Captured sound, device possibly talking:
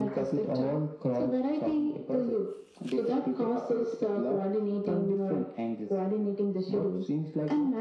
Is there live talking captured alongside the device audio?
No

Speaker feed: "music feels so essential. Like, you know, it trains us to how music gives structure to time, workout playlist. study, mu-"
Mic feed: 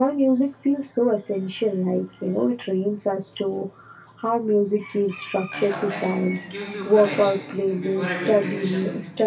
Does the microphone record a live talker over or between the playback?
Yes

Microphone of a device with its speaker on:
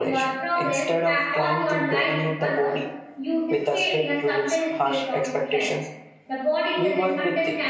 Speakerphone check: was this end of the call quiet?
No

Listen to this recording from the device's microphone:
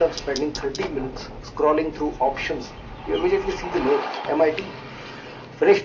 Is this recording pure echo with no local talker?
Yes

